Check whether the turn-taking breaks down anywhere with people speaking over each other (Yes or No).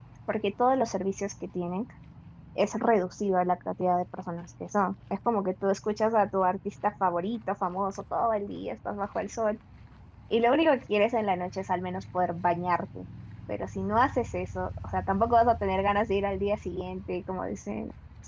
No